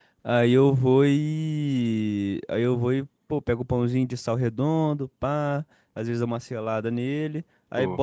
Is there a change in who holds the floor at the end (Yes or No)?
No